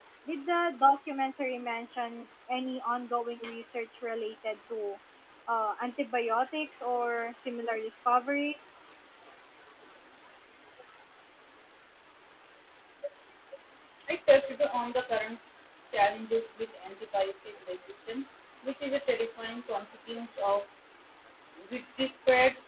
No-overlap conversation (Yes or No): Yes